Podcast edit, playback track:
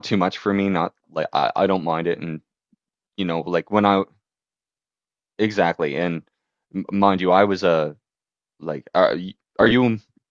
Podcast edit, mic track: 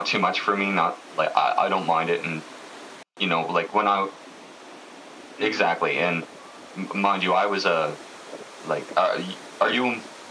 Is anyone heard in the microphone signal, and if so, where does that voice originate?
both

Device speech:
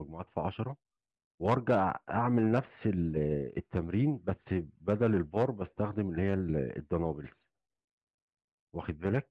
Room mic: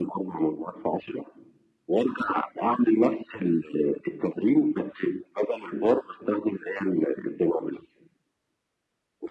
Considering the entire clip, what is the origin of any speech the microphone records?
echo only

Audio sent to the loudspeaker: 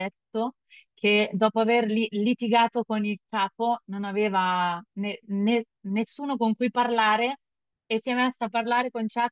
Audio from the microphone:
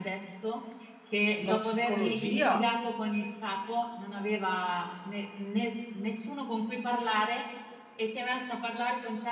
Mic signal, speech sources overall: both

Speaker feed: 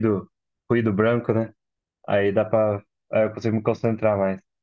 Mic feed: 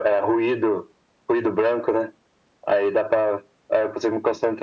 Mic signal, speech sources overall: echo only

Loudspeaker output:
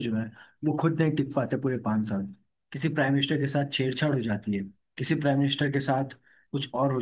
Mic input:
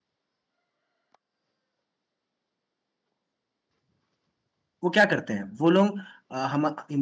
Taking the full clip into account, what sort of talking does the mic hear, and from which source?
user only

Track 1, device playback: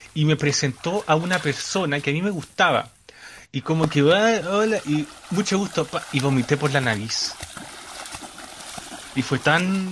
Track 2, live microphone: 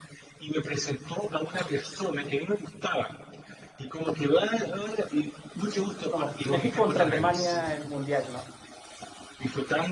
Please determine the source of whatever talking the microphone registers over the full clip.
both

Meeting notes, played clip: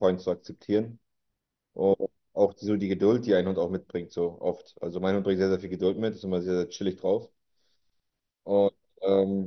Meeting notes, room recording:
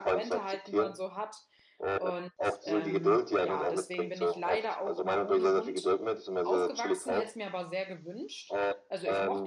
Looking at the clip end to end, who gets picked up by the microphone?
both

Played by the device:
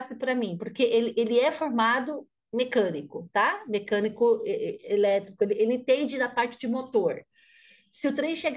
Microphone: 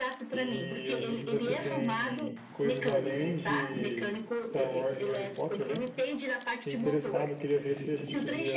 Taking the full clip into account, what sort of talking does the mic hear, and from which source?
both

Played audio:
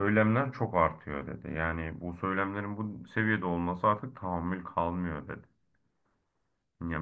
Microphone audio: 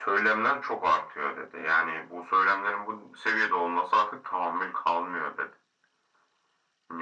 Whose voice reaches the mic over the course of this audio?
echo only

